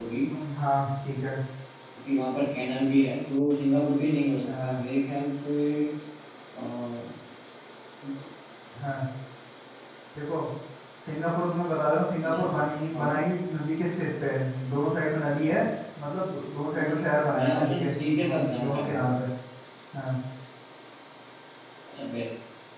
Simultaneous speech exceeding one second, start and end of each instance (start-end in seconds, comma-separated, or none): 17.4-19.1